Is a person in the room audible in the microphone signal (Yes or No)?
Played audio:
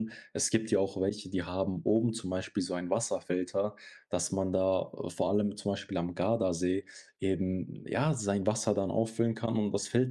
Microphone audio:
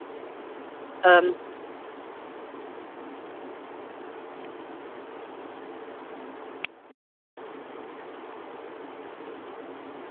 Yes